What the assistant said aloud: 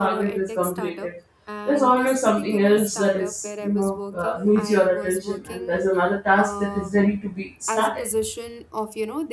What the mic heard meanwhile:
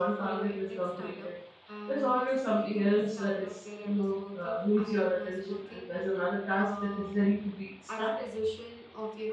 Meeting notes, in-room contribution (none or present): none